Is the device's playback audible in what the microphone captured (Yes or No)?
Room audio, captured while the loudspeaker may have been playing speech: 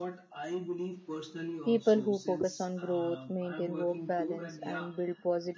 Yes